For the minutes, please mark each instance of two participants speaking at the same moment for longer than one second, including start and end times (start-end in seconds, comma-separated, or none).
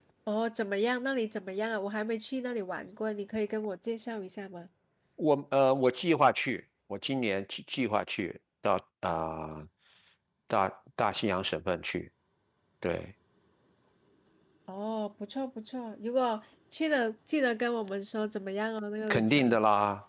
none